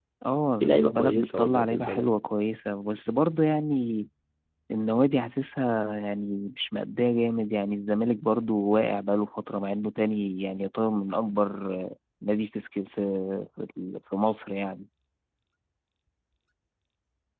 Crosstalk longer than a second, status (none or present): present